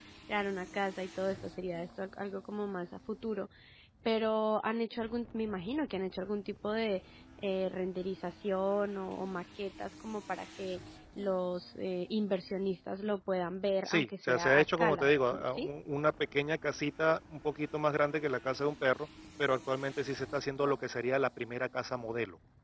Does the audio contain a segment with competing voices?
Yes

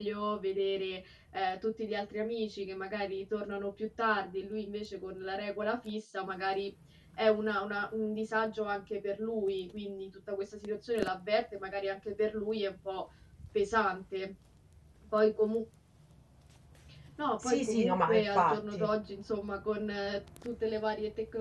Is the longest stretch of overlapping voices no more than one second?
No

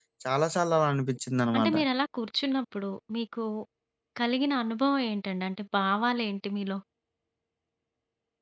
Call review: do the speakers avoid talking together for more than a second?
Yes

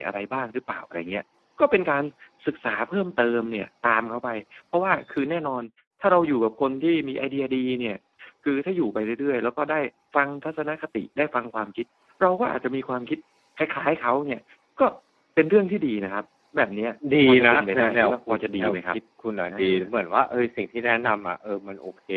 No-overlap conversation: No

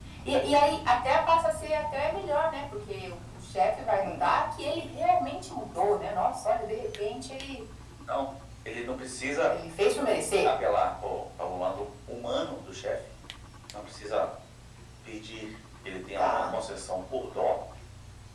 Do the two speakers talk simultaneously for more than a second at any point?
No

